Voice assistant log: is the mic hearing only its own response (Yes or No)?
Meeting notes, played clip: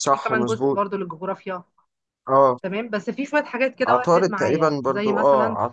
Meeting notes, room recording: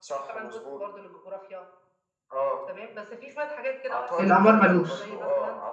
No